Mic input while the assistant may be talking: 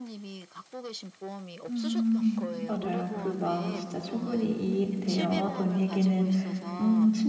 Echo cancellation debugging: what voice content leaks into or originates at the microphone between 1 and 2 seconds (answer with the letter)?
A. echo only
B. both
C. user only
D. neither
B